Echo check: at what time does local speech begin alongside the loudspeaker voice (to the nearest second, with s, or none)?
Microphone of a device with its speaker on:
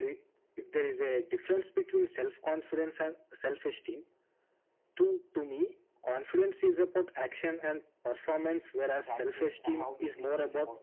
9 s